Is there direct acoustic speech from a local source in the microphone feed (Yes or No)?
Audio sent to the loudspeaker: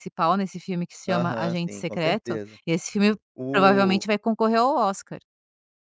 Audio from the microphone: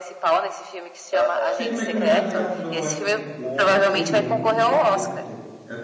Yes